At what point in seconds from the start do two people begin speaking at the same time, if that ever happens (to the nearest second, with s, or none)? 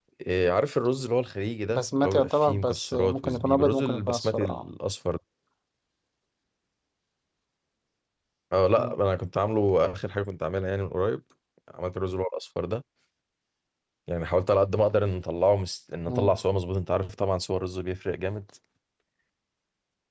2 s